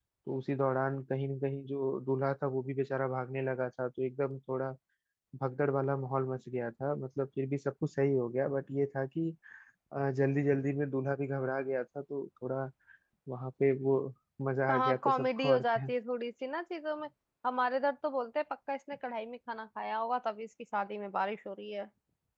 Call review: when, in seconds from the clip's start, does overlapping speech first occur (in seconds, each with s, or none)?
14.7 s